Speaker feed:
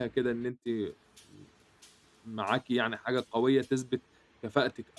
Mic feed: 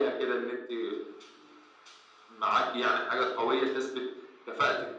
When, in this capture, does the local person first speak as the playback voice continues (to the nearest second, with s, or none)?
none